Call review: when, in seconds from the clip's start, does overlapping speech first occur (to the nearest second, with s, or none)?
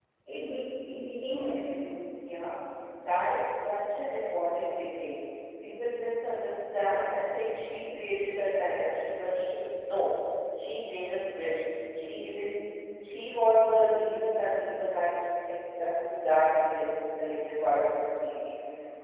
none